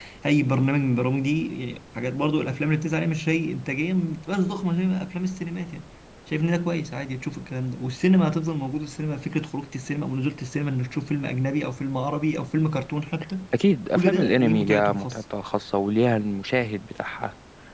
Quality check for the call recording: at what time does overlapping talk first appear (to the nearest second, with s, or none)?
14 s